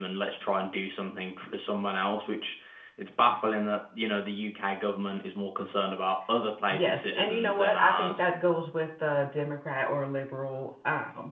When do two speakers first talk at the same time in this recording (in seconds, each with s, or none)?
6.7 s